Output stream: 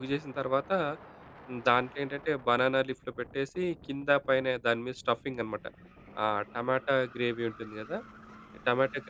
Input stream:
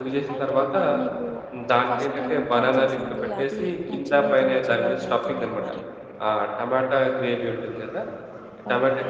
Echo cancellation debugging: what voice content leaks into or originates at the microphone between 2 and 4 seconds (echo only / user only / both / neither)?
both